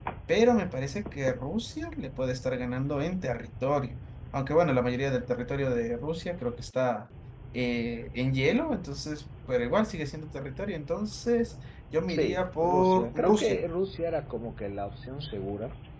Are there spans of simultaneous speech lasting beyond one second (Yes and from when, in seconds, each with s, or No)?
Yes, from 12.1 s